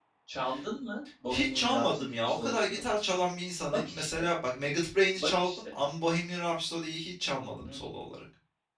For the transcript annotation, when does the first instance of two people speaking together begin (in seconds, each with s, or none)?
1.3 s